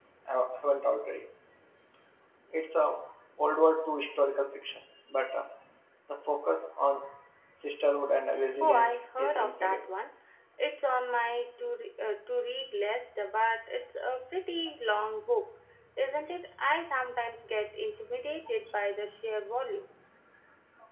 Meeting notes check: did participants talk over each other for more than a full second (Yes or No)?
Yes